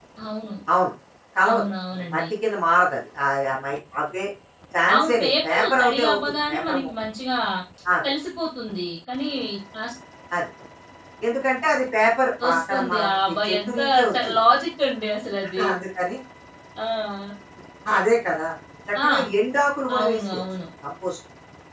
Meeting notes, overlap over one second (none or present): present